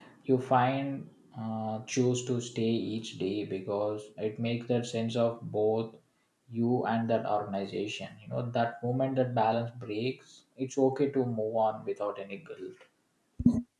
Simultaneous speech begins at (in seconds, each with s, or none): none